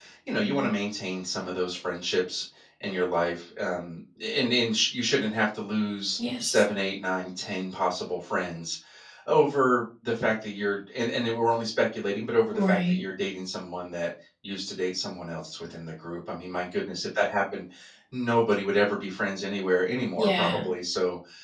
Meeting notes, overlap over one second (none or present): none